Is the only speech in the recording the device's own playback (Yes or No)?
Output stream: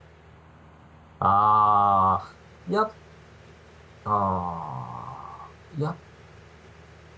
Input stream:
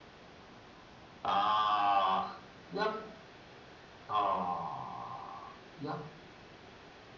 Yes